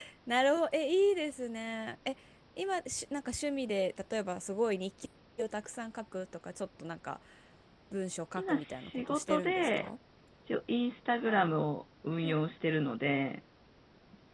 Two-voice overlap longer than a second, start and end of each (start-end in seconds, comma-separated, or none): 8.4-9.9